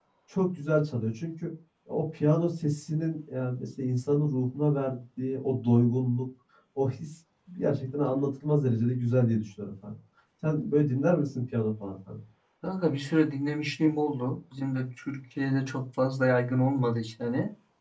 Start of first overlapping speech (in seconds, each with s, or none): none